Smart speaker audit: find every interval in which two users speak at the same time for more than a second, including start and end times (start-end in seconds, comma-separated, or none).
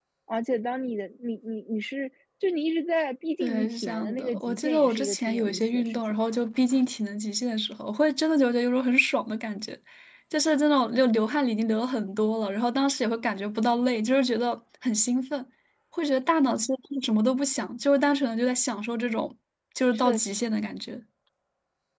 3.4-6.0